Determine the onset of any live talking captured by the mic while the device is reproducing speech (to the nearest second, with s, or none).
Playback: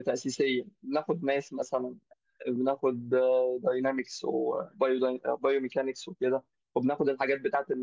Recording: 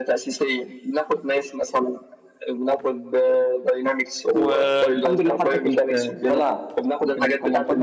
4 s